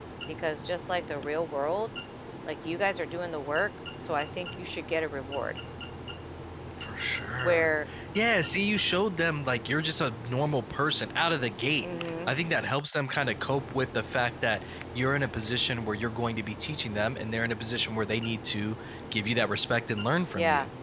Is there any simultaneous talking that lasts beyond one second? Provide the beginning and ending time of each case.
none

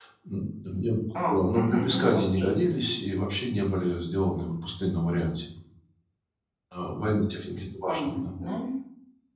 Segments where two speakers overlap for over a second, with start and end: 1.3-2.5

